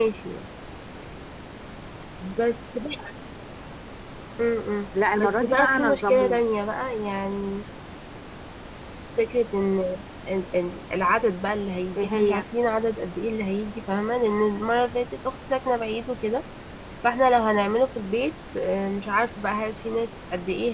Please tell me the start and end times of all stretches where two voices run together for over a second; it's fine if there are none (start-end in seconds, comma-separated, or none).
5.2-6.4